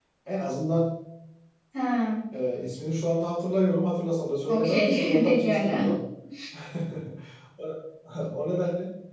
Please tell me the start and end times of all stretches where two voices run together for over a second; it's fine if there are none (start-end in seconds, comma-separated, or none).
4.5-5.9